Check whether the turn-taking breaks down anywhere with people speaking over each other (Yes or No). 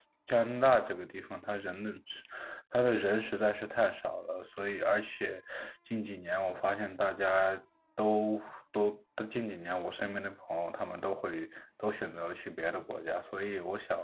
No